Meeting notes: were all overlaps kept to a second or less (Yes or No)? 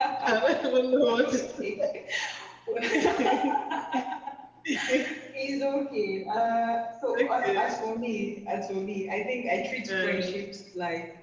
Yes